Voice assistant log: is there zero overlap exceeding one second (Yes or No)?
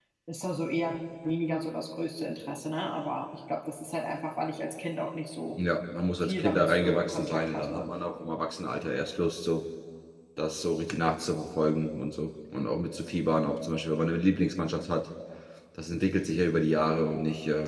No